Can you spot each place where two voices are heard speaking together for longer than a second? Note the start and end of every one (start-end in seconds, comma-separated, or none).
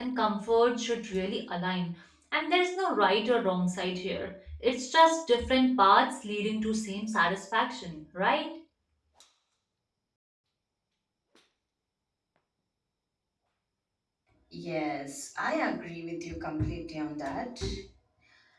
none